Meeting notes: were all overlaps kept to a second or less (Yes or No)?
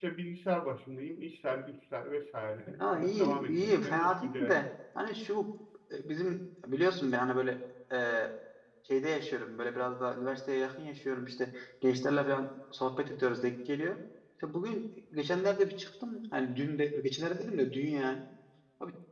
No